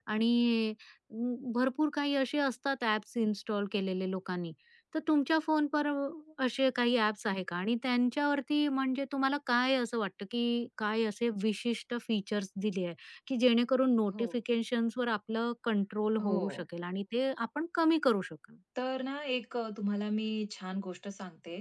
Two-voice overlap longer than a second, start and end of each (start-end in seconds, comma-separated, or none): none